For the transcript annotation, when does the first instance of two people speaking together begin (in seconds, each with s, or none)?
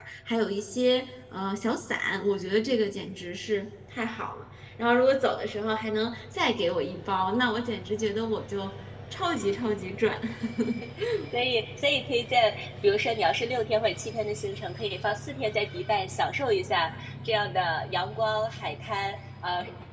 none